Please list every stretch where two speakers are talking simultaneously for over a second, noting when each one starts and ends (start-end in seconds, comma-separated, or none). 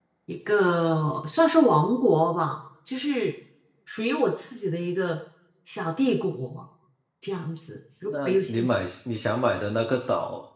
none